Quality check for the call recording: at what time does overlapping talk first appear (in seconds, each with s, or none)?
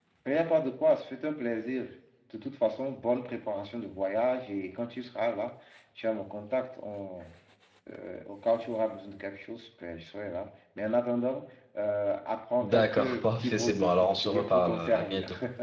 12.6 s